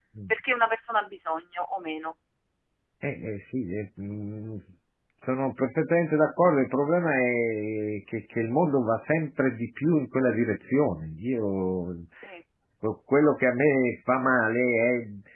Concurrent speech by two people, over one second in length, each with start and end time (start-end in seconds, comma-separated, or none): none